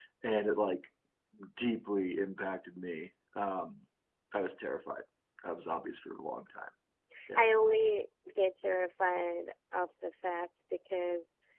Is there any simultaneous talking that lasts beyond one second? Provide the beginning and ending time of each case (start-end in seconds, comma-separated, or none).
none